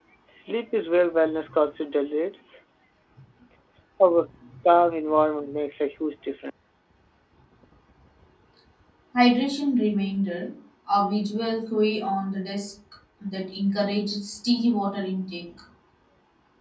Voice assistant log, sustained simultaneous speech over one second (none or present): none